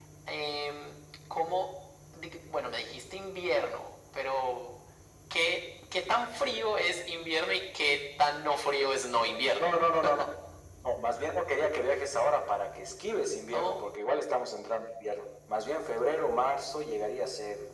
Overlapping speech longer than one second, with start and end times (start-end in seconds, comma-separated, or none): none